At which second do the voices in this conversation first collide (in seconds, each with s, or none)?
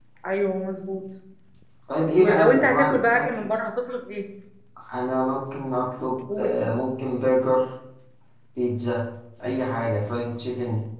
2.2 s